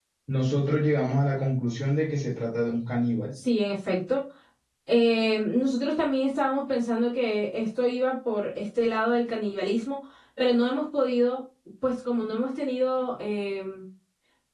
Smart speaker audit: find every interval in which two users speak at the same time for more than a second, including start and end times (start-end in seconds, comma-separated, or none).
none